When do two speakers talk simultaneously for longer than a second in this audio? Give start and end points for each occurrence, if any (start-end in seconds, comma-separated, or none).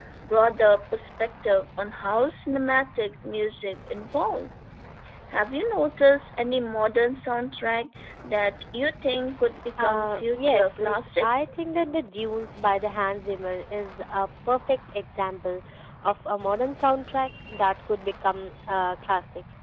9.8-11.3